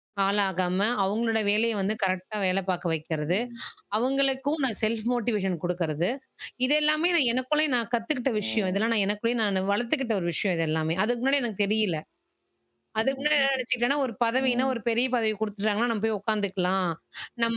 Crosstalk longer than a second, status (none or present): none